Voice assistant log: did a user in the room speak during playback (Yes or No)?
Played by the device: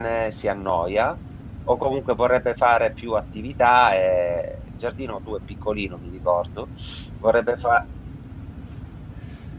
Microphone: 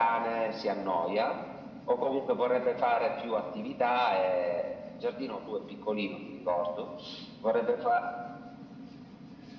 No